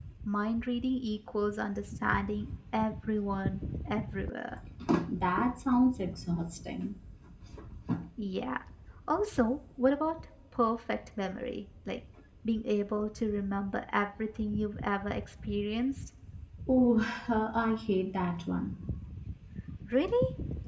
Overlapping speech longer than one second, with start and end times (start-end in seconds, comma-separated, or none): none